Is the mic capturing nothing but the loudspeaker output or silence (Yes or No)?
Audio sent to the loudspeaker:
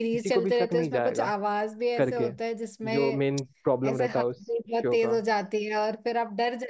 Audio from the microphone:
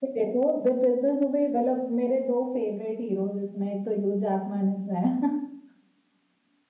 No